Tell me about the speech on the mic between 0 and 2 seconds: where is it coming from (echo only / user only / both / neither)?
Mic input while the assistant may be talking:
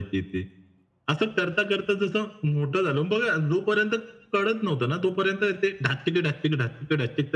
echo only